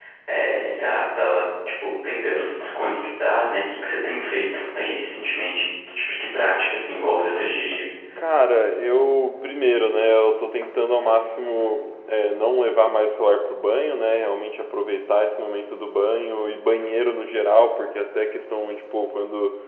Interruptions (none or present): none